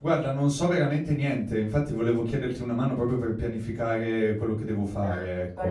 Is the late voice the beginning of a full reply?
Yes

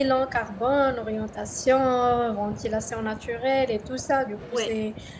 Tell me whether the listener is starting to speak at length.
No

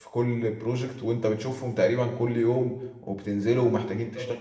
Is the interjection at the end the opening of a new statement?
No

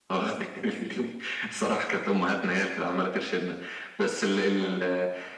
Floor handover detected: No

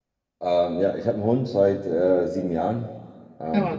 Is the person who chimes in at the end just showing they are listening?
Yes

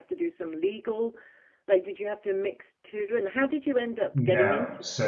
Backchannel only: No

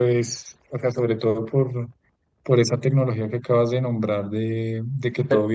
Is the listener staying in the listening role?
Yes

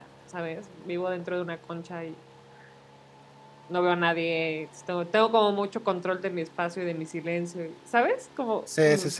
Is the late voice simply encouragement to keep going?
No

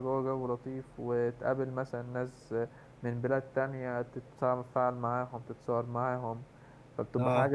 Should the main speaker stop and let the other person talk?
No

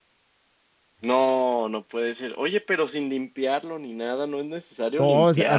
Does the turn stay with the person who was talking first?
No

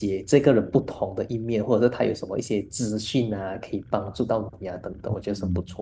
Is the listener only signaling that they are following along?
No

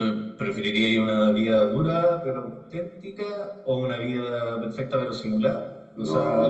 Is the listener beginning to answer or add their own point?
Yes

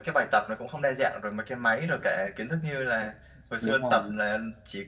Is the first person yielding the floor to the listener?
No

